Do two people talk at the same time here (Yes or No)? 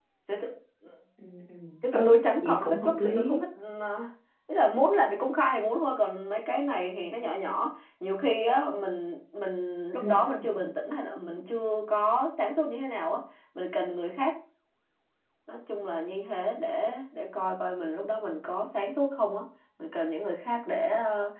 Yes